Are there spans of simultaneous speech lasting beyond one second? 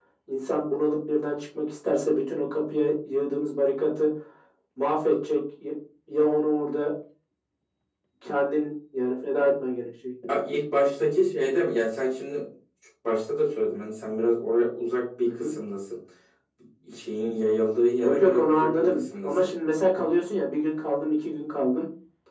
Yes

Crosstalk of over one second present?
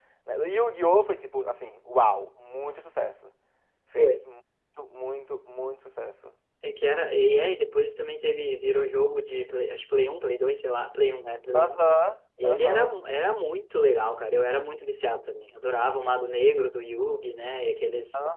No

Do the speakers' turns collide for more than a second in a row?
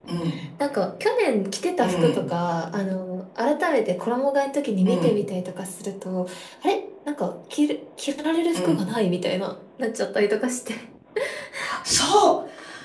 No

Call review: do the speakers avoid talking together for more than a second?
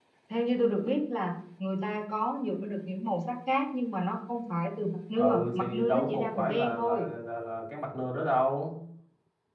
No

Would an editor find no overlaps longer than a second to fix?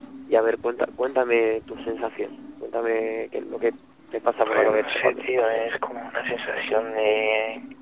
No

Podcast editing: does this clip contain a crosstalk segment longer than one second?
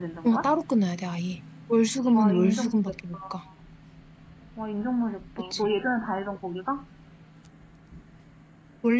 Yes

